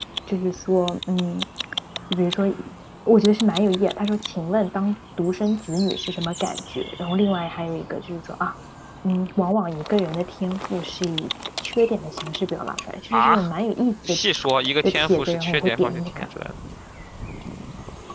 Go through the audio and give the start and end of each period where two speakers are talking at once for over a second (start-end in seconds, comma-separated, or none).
14.8-16.2